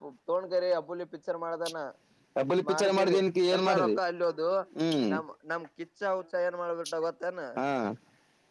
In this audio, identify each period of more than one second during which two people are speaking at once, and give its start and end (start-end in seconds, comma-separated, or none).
none